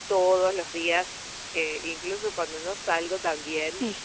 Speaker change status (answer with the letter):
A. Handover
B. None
B